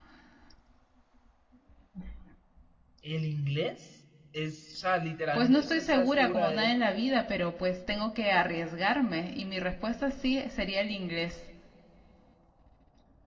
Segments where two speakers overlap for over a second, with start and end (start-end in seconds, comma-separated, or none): 5.3-6.8